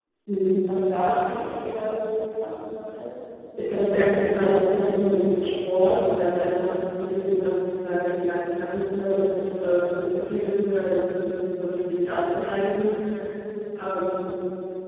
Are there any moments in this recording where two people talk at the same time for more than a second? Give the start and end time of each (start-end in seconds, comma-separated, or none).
none